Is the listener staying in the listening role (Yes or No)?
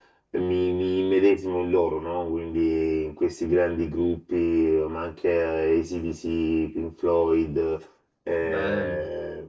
Yes